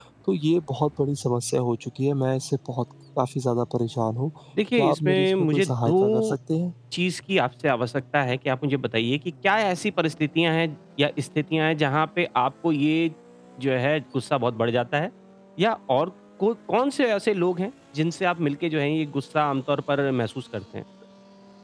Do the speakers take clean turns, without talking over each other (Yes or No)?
No